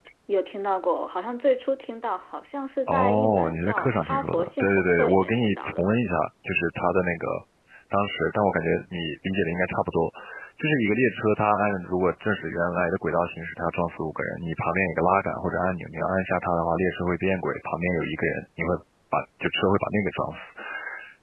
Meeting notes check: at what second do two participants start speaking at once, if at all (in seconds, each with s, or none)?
2.9 s